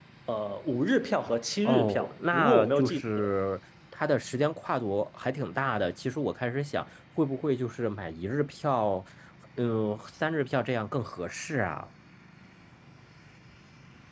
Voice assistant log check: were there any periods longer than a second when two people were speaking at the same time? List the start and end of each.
1.6-3.0

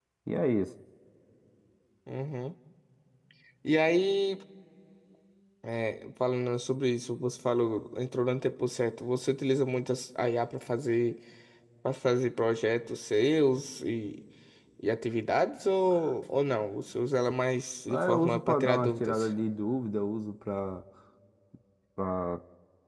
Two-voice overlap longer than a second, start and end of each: 17.9-19.3

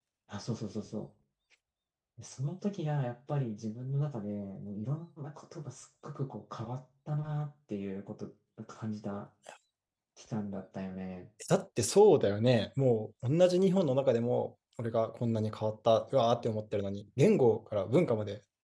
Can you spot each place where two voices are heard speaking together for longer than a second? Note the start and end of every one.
none

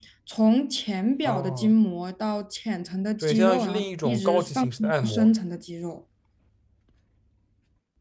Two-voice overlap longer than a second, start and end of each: 3.2-5.3

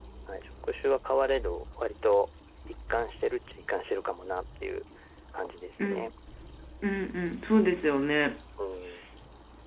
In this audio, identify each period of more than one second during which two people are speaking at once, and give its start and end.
none

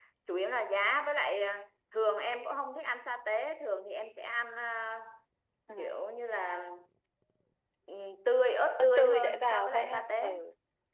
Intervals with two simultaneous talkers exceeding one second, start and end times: 8.8-10.3

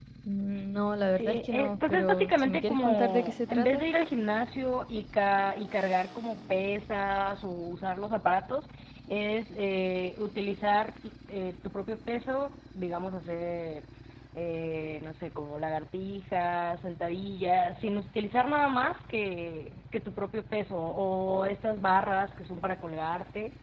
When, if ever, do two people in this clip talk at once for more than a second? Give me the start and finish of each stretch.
1.1-3.8

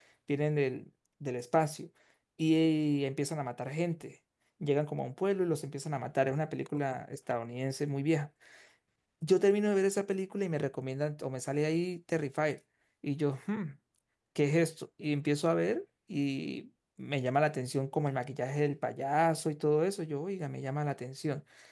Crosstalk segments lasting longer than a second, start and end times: none

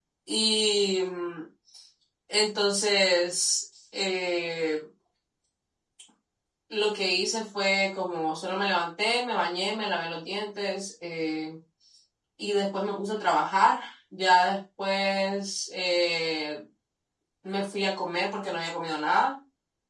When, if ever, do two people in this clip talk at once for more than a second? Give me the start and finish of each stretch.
none

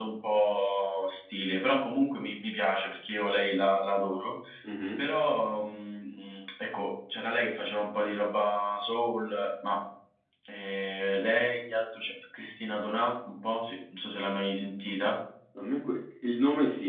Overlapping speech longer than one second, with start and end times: none

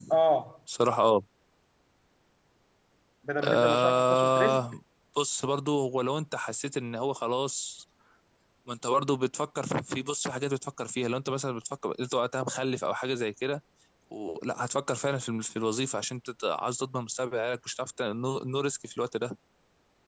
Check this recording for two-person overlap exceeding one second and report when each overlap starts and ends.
3.4-4.6

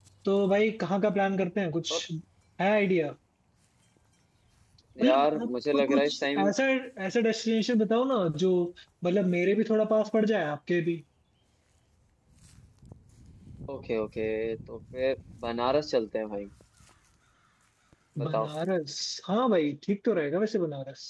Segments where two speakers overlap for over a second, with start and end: 5.0-6.5

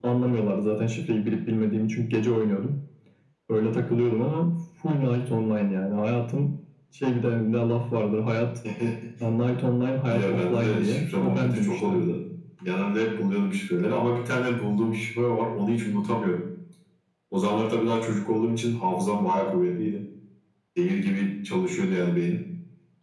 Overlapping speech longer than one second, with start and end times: 10.1-12.0

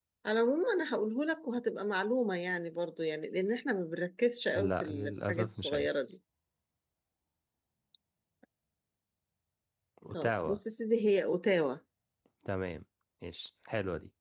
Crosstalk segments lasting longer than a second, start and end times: 4.6-5.9

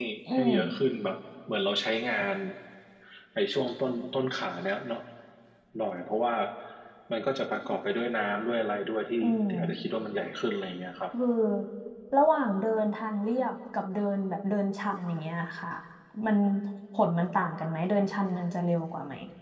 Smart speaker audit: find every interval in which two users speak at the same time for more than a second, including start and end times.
none

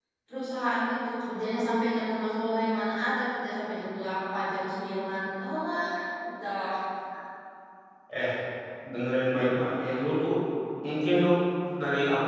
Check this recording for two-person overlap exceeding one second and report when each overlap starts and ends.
none

